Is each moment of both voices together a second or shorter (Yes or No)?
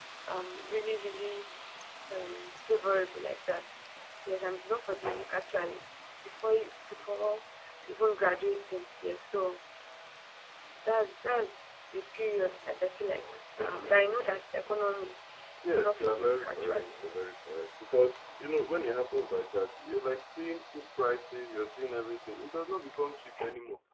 No